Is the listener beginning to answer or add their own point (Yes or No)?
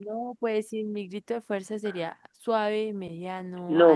Yes